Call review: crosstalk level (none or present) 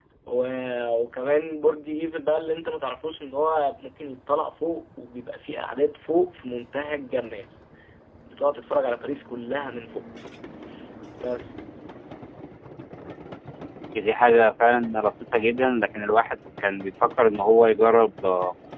none